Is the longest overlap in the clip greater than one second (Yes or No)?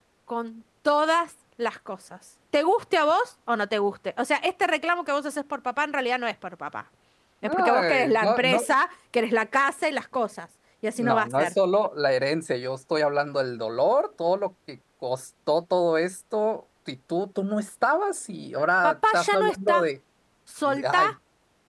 Yes